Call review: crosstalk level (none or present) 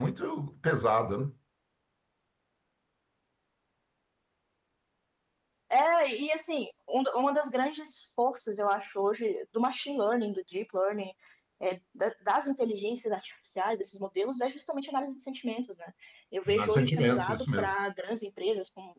present